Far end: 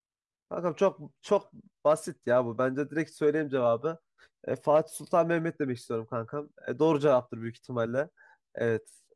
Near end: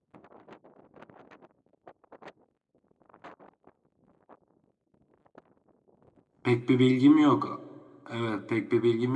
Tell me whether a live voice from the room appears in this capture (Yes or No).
Yes